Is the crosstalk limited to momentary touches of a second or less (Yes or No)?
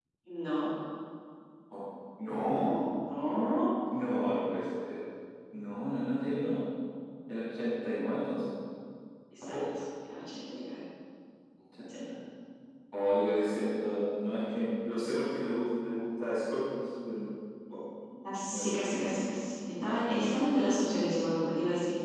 Yes